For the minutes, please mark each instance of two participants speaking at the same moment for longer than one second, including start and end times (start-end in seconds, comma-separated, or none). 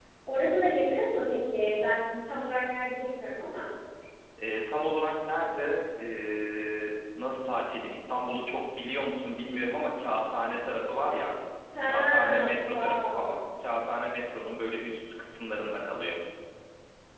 11.8-13.4